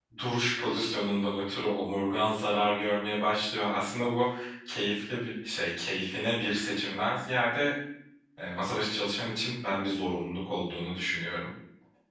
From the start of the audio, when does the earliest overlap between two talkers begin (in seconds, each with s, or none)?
none